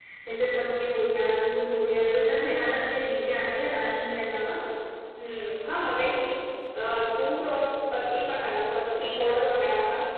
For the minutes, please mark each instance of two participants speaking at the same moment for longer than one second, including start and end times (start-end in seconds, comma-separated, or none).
none